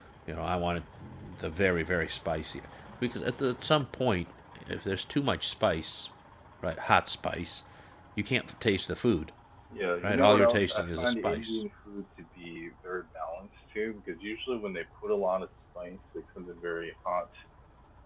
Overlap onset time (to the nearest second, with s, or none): 10 s